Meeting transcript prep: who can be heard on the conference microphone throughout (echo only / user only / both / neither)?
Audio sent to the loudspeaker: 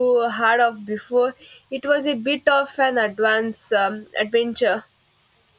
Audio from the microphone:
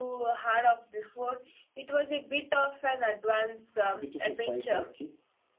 both